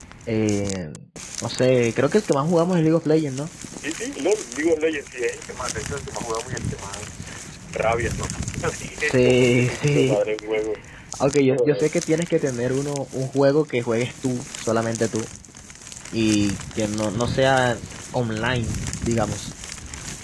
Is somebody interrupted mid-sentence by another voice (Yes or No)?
Yes